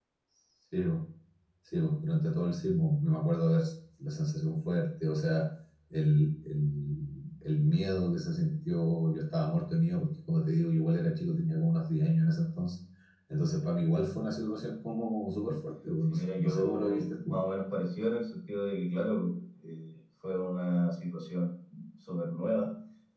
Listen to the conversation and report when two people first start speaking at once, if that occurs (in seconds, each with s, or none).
16.1 s